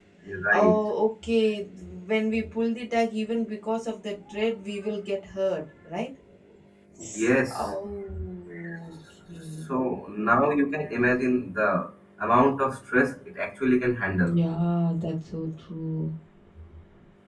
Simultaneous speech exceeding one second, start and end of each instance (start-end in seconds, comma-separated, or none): none